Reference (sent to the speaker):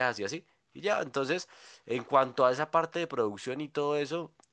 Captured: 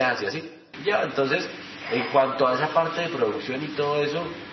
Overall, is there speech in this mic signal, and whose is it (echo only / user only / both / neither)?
echo only